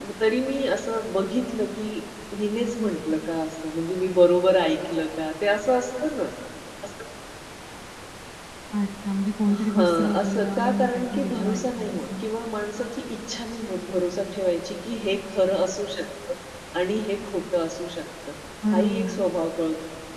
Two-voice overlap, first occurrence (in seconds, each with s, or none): 9.5 s